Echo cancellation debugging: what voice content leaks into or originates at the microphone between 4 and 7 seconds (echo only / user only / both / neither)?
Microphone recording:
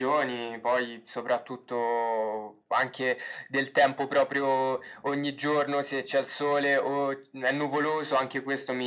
echo only